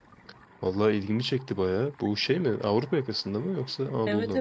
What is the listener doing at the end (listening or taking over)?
taking over